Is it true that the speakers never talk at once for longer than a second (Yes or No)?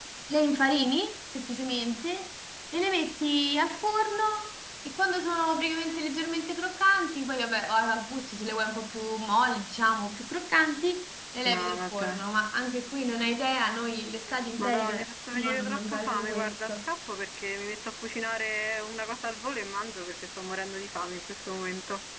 No